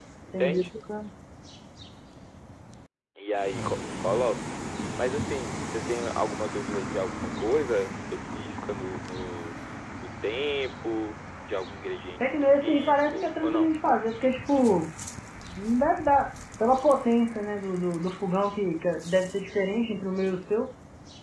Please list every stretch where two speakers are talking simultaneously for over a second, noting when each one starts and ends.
12.2-13.7

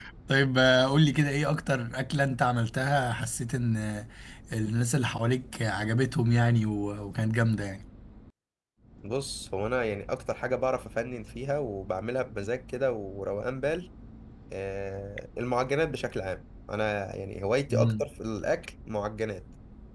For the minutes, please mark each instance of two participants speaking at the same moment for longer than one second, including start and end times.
none

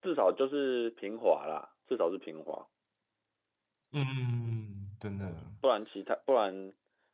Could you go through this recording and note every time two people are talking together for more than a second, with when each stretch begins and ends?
none

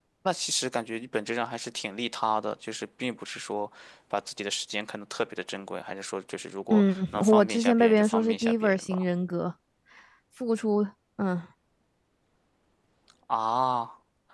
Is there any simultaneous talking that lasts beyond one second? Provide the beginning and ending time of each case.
6.7-9.0

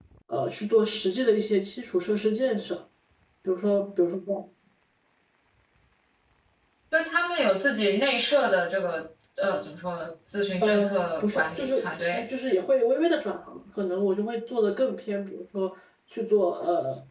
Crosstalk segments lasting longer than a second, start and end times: 10.6-12.3

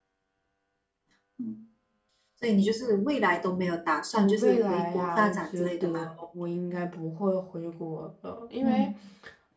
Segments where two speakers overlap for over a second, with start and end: 4.1-6.0

